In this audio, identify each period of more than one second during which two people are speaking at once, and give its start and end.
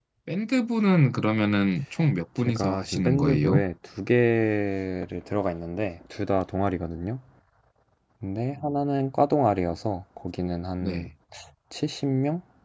2.4-3.6

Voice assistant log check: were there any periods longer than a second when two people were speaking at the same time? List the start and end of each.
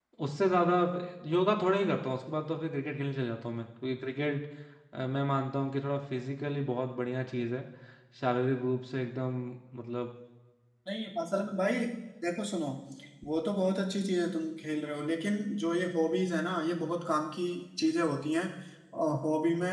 none

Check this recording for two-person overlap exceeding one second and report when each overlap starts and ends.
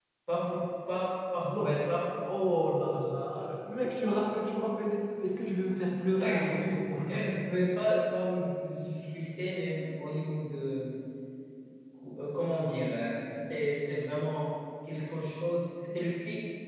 none

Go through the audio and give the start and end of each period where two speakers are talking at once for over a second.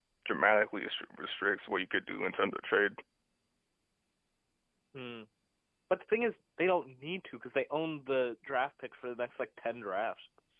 none

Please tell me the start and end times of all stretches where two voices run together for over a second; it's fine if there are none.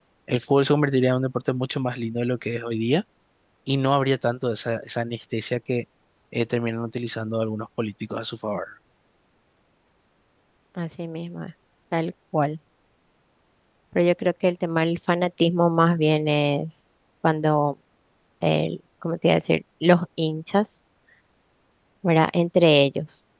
none

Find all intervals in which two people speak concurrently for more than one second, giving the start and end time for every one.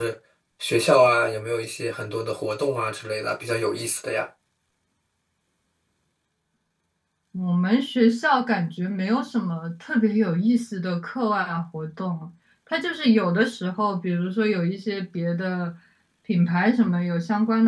none

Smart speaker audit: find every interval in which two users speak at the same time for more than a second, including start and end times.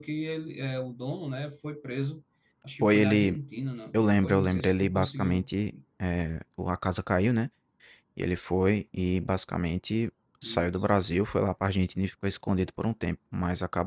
3.9-5.5

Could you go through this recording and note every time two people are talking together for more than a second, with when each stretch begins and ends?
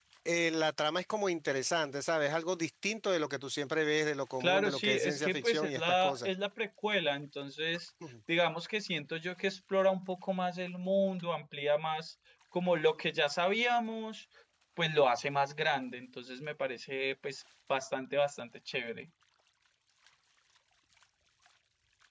4.4-6.3

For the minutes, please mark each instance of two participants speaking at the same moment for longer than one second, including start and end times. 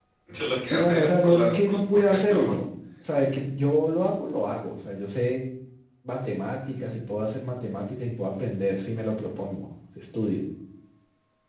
0.6-2.6

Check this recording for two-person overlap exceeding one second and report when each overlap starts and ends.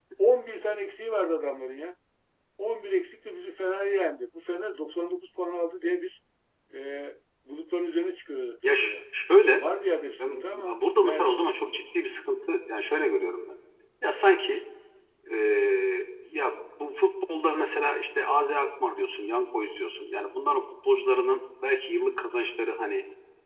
10.2-11.4

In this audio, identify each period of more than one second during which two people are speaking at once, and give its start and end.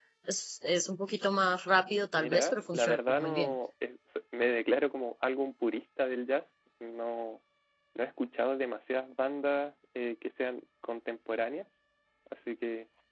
2.2-3.5

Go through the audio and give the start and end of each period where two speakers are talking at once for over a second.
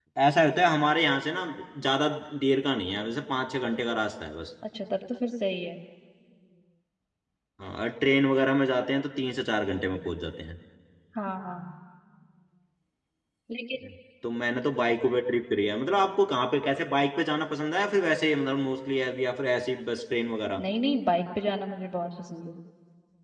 none

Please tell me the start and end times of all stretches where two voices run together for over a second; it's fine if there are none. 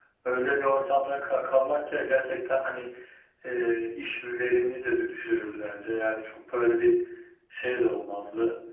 none

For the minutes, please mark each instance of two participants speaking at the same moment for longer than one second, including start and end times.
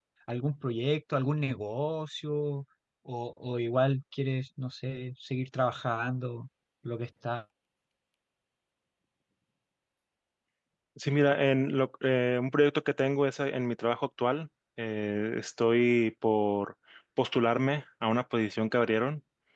none

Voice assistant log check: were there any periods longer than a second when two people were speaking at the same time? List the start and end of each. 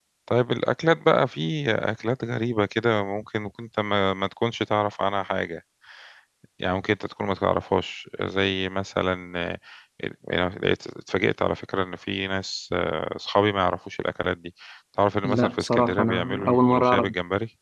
15.2-17.1

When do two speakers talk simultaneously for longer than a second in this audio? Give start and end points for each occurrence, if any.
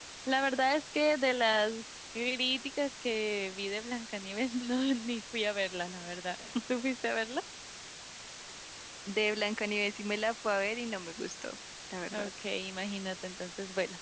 none

